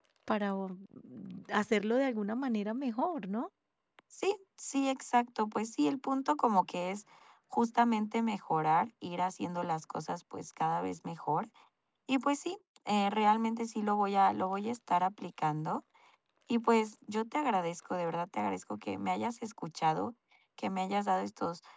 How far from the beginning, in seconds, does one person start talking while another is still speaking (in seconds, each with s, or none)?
none